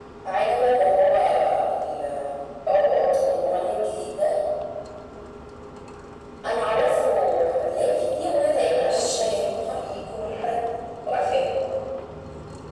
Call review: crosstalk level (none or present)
present